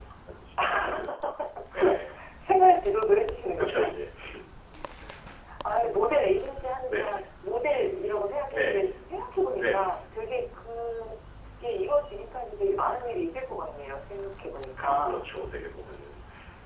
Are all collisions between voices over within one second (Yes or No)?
Yes